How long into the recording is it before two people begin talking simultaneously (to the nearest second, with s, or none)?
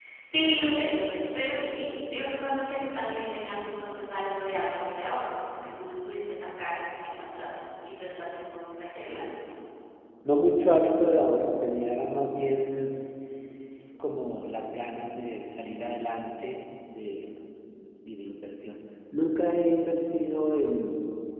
none